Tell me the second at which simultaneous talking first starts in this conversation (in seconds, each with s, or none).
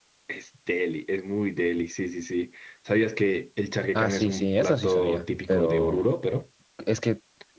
3.9 s